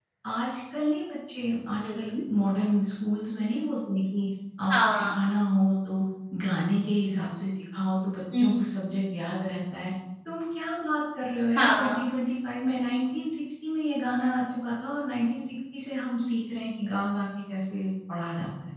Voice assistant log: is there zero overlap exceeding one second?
Yes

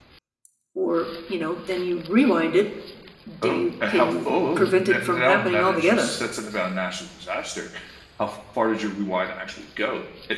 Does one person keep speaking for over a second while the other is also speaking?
Yes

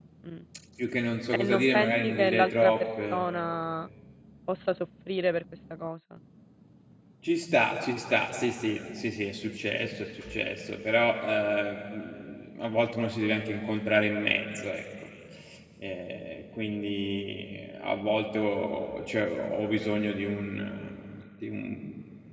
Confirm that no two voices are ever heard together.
No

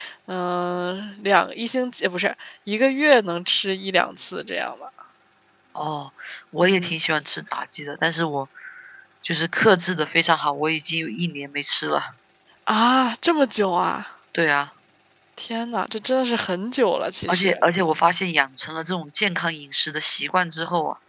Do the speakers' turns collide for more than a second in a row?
No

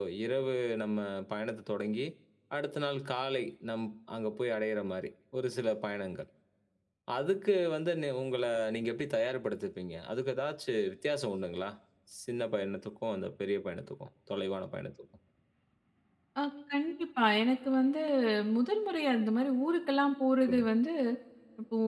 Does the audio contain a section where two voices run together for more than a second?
No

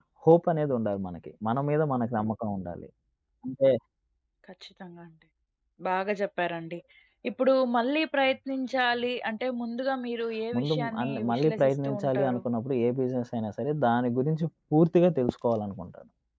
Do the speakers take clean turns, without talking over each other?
No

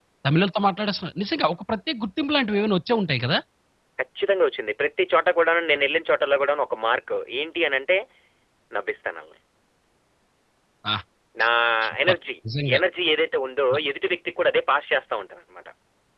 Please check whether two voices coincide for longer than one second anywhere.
No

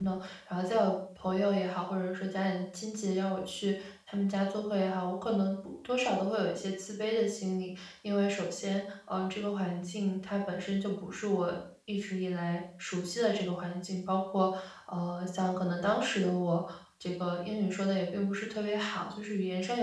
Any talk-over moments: No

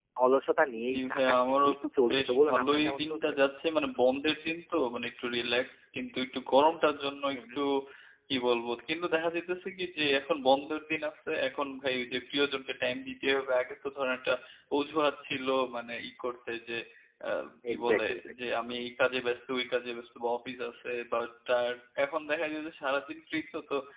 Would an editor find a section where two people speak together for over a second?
Yes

